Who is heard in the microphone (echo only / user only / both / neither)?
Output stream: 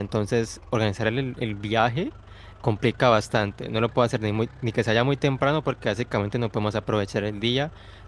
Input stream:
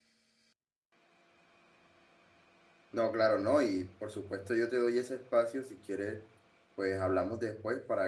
user only